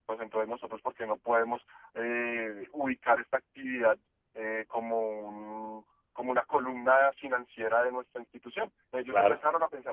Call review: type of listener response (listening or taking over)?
listening